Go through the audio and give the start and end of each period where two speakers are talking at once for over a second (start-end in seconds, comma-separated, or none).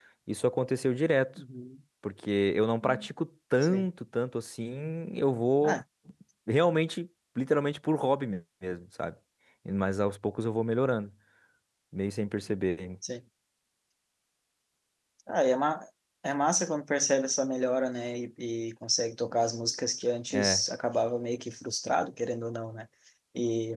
none